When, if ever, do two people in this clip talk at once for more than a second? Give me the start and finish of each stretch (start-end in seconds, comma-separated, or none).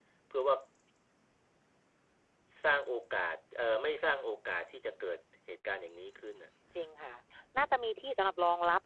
none